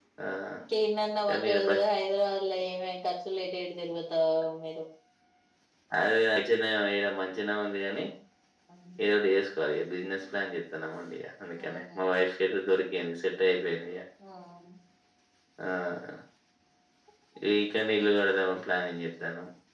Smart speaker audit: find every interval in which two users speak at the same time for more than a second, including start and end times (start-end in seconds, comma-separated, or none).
none